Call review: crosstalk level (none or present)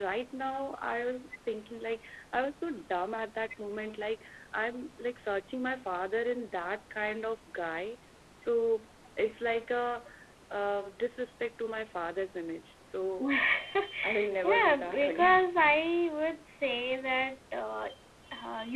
present